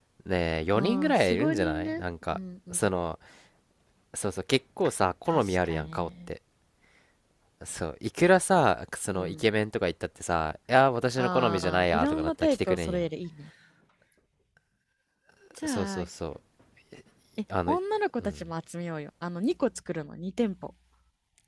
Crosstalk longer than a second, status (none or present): present